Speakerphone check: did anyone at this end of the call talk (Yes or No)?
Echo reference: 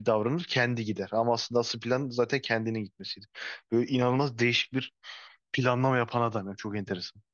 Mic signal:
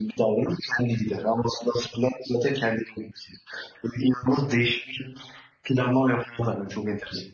No